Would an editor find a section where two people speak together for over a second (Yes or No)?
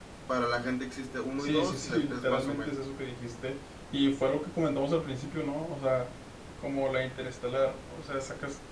Yes